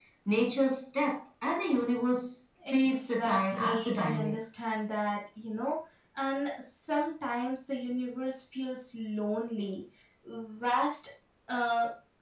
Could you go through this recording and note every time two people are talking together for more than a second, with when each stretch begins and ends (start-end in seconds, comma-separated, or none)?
2.7-4.3